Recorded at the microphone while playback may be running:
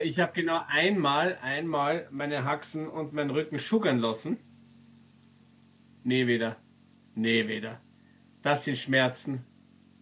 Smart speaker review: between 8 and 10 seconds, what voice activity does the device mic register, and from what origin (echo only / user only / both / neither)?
user only